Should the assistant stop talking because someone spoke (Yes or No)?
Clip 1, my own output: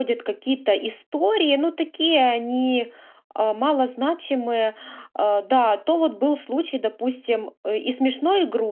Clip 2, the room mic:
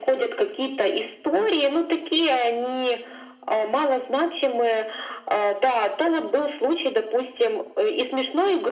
No